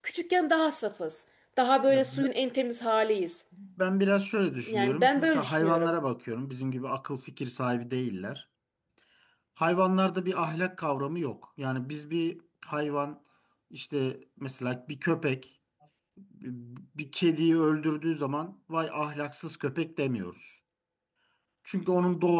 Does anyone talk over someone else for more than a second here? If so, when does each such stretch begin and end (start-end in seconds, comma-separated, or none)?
4.6-5.9